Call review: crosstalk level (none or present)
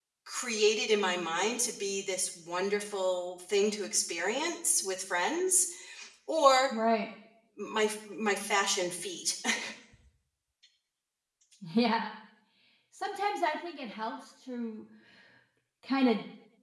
none